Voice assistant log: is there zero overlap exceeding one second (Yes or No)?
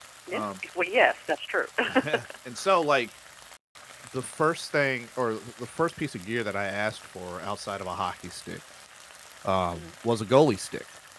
Yes